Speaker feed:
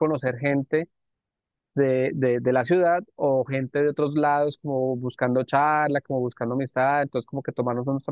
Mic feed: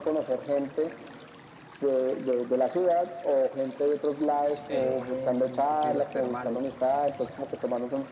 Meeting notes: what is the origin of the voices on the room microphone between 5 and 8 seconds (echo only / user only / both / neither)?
both